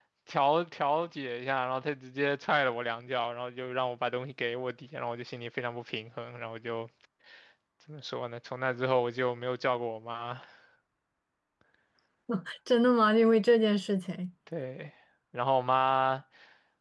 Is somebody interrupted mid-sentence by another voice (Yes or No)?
No